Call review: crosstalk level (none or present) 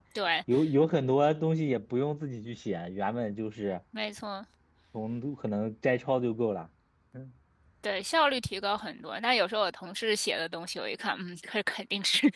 none